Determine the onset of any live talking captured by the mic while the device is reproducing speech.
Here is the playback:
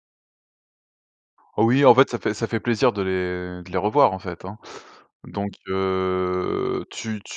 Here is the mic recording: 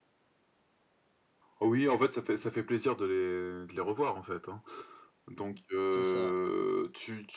5.9 s

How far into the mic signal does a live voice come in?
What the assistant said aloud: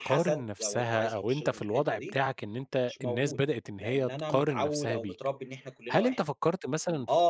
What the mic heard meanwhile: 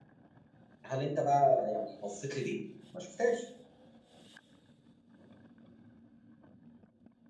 0.8 s

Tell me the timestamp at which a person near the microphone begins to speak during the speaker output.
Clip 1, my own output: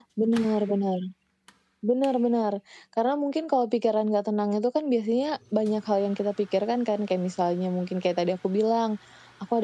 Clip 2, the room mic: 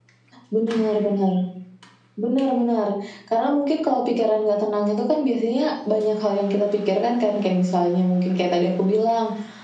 none

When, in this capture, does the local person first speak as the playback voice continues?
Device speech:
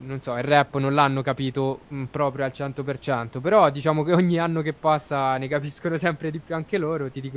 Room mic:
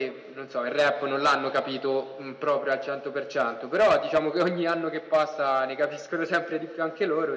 none

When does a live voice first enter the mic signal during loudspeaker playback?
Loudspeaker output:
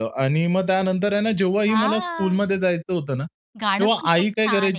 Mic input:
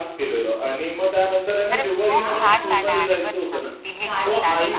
1.7 s

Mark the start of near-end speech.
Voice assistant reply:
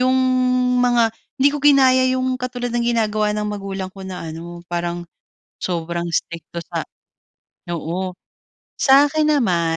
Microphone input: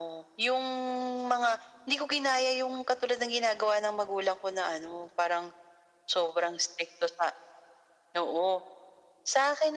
none

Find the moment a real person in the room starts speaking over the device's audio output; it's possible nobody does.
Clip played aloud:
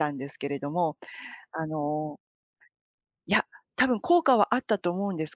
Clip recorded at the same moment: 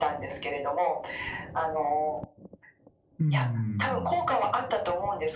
3.2 s

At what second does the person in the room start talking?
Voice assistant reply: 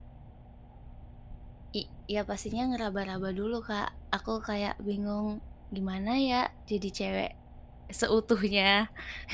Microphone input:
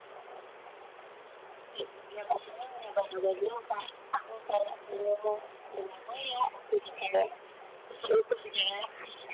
none

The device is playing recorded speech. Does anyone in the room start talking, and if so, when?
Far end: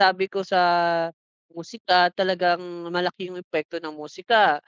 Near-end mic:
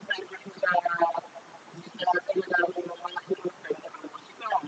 none

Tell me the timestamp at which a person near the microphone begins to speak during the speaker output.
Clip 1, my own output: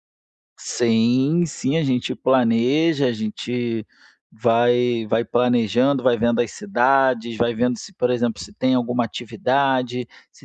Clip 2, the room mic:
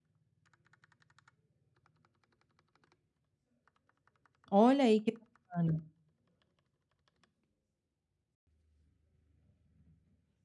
4.5 s

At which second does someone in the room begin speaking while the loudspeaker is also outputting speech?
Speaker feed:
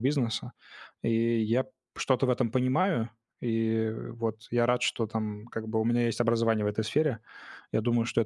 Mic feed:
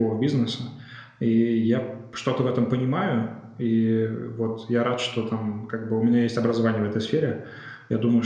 none

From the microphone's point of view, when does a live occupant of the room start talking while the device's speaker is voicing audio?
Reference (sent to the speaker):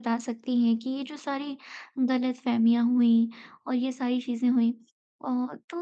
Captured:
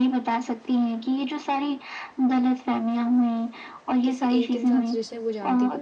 4.0 s

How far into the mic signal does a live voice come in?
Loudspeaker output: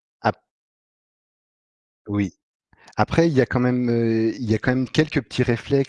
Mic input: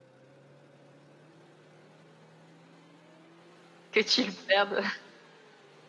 3.9 s

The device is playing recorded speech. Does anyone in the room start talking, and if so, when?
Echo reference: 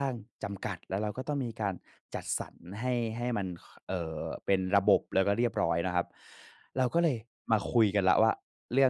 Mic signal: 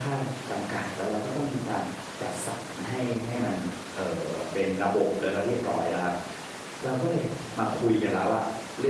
none

